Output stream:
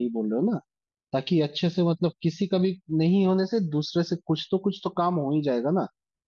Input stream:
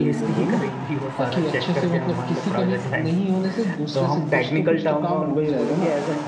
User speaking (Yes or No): Yes